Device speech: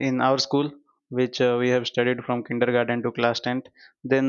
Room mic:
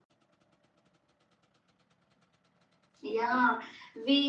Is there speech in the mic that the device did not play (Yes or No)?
Yes